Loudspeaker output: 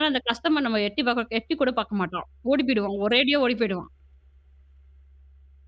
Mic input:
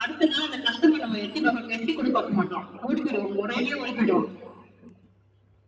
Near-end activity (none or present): none